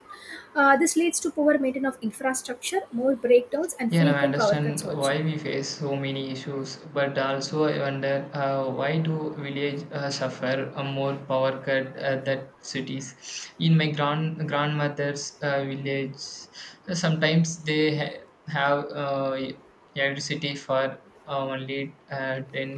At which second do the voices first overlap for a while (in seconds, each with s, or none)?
3.9 s